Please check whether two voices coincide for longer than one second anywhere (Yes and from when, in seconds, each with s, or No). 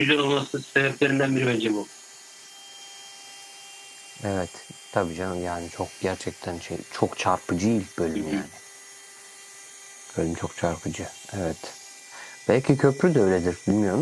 No